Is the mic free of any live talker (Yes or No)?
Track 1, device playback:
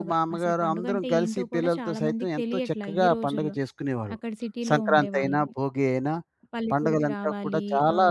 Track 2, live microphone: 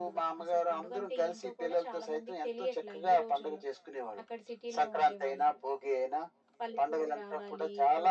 Yes